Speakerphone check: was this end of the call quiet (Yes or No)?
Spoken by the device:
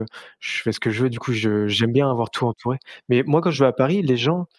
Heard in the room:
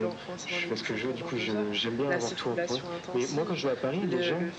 No